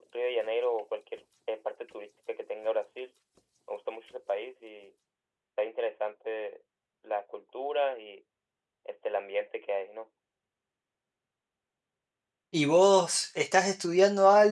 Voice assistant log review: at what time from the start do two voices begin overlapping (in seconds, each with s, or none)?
none